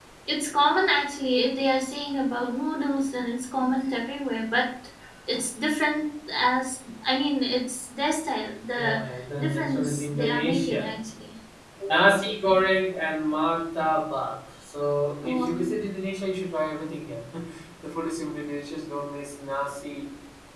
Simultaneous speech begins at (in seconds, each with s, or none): 8.8 s